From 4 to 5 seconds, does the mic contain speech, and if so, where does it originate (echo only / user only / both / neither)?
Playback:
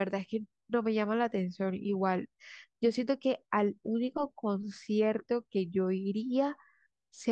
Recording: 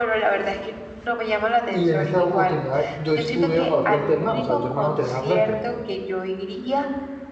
both